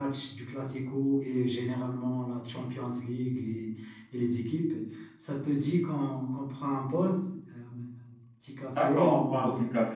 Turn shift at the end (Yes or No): Yes